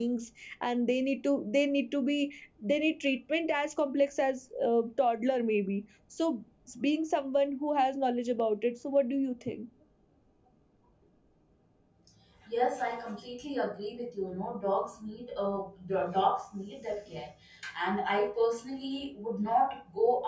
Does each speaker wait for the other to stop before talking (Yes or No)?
Yes